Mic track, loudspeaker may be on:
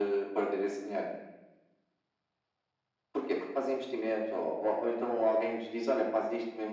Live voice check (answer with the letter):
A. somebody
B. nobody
B